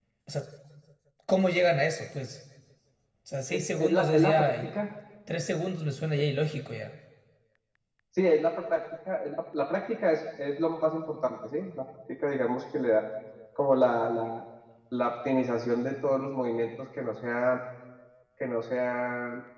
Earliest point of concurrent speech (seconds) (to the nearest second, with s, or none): 4 s